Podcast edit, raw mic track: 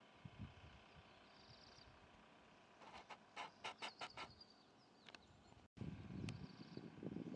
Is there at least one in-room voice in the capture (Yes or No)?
No